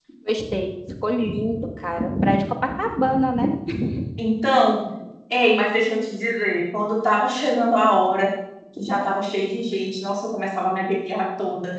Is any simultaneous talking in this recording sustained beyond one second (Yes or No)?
No